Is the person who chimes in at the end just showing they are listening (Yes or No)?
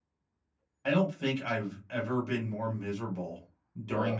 Yes